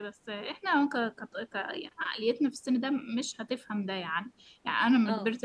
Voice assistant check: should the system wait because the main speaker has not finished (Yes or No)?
Yes